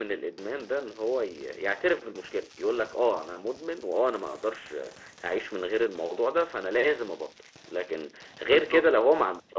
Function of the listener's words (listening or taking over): listening